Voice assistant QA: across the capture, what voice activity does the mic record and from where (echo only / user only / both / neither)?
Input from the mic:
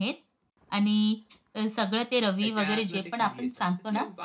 both